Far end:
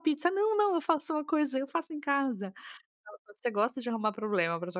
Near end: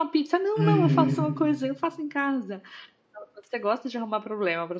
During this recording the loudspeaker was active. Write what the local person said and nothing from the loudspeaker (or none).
Uhum.